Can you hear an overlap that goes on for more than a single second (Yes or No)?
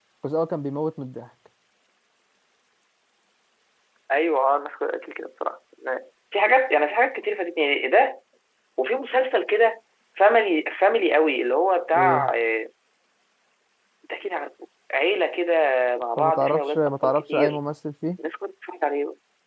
Yes